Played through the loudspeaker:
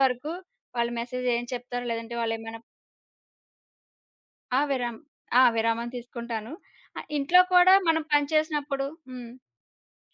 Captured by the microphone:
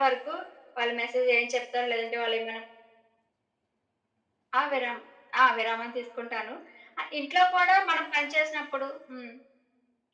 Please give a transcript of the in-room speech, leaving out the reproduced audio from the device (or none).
none